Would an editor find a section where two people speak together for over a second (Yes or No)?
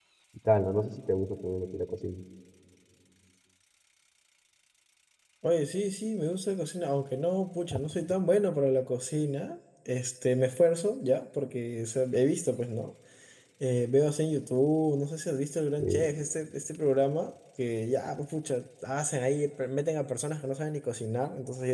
No